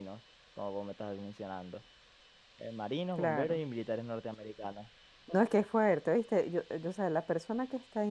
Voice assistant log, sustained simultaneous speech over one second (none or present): none